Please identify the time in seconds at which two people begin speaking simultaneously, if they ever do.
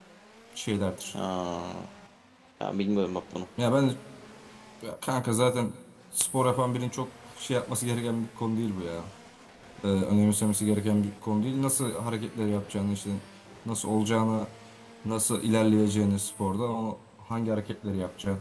none

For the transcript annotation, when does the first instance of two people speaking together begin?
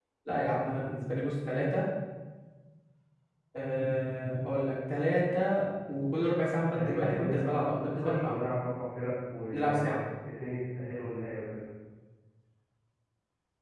6.7 s

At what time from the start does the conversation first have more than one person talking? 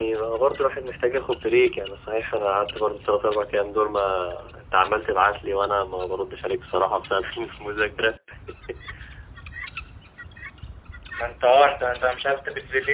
none

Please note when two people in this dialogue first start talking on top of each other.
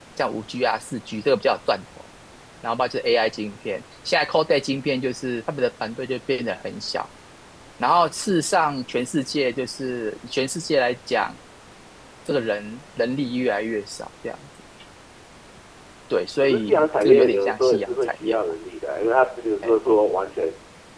16.4 s

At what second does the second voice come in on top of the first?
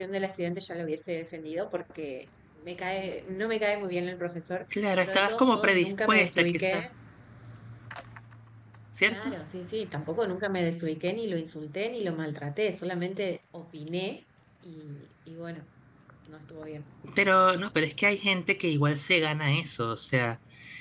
4.7 s

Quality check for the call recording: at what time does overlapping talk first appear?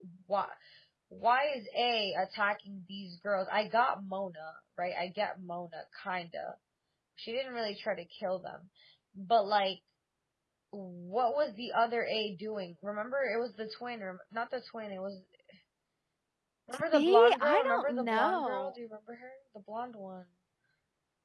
16.9 s

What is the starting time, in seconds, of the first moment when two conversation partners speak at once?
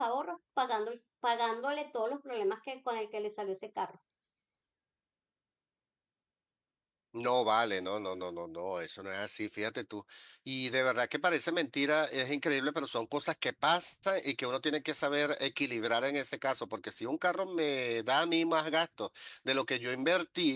none

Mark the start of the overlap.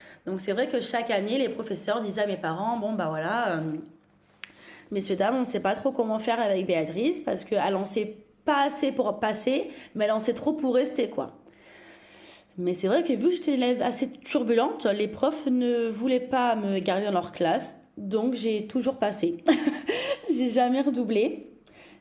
none

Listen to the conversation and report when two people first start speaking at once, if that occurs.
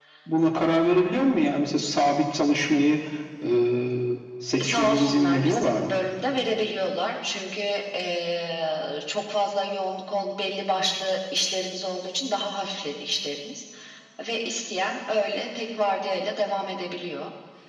4.6 s

